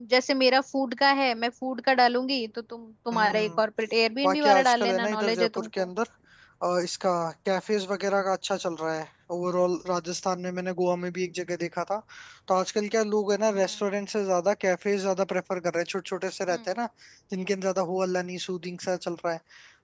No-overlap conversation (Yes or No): No